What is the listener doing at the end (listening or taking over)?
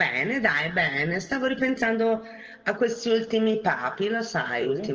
taking over